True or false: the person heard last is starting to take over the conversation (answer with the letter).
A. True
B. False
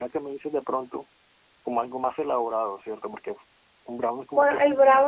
A